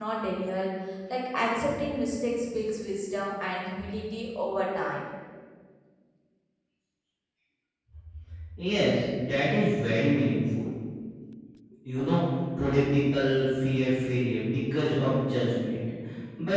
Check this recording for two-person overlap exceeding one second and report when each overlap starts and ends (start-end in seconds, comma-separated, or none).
none